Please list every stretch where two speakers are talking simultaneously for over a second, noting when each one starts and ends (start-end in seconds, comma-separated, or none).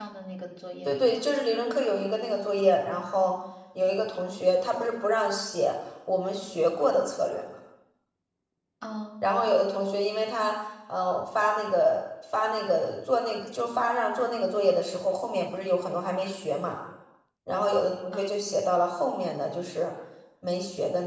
none